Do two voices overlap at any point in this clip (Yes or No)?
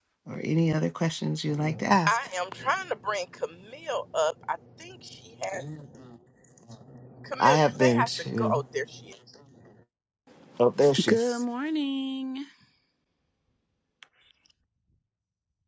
Yes